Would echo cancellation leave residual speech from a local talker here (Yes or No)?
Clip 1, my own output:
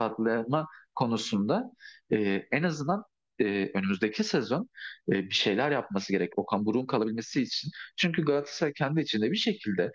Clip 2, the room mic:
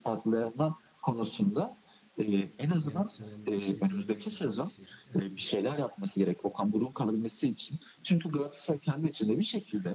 Yes